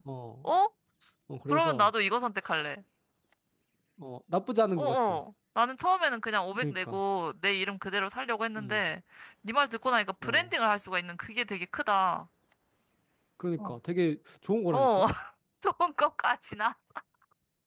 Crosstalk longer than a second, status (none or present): none